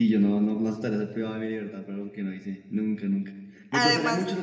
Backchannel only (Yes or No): Yes